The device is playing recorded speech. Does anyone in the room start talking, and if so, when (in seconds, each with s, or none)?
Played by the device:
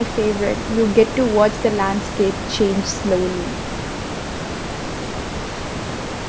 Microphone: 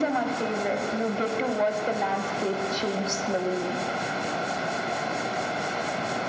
none